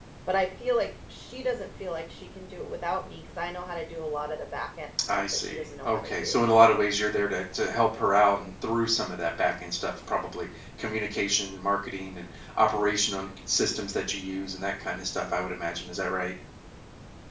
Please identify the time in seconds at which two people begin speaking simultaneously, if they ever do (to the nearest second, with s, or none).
5 s